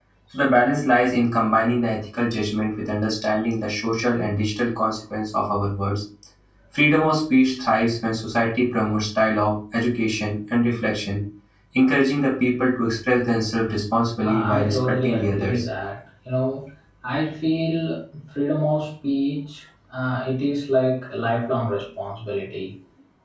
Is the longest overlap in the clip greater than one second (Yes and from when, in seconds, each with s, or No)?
Yes, from 14.2 s